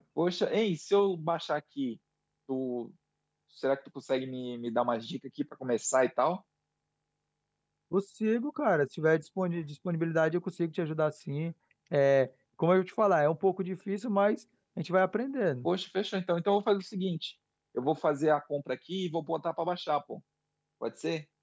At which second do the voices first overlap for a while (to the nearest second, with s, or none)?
none